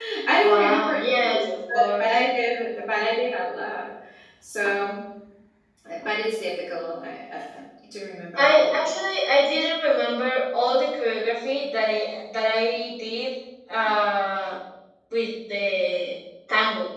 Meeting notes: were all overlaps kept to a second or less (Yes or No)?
No